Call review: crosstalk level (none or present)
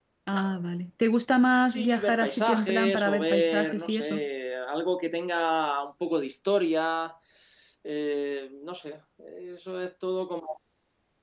present